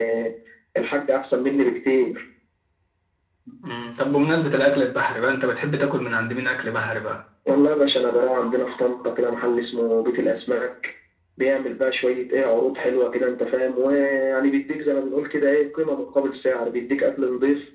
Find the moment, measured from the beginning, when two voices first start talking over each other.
none

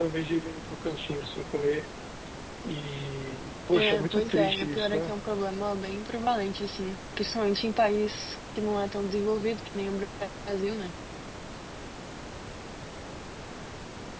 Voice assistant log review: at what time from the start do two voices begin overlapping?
4 s

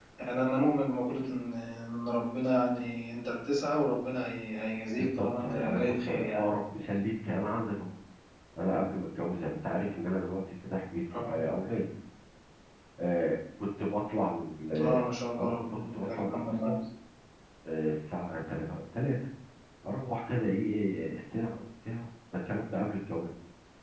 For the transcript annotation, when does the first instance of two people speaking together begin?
5 s

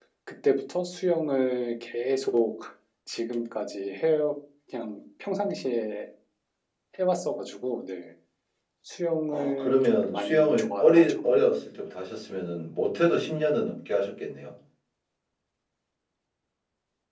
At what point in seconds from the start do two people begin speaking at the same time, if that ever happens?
9 s

